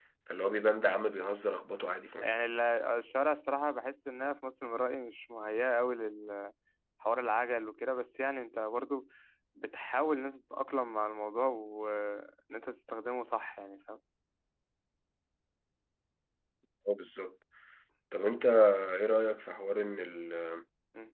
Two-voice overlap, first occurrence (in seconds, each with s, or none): none